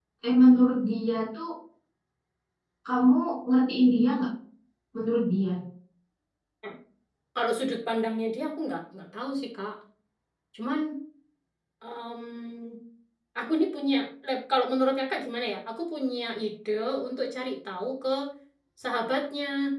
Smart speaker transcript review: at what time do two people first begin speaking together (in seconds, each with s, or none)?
none